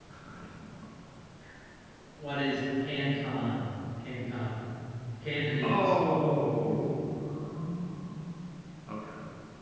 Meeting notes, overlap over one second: none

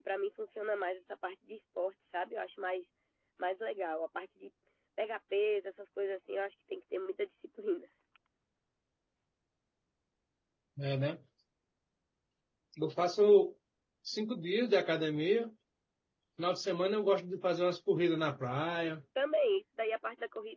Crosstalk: none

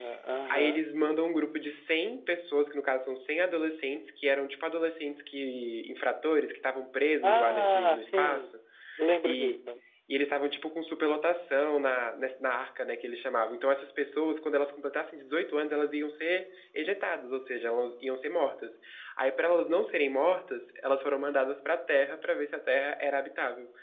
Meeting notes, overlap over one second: present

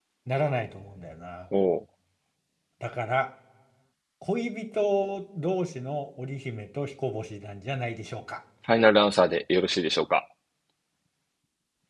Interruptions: none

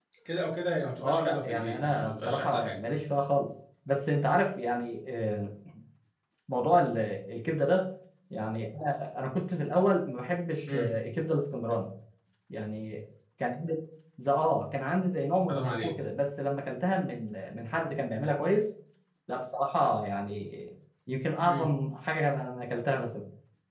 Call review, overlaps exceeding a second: present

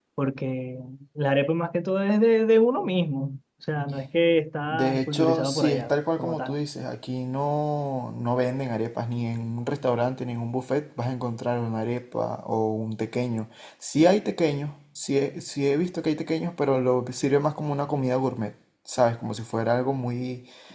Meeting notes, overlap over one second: present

